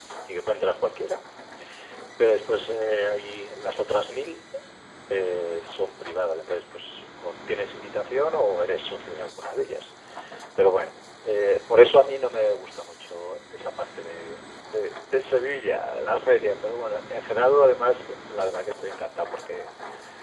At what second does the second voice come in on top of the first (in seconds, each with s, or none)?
none